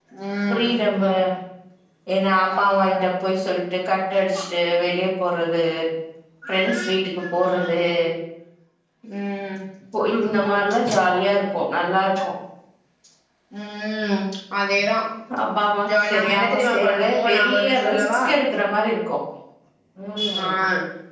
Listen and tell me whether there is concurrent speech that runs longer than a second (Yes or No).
Yes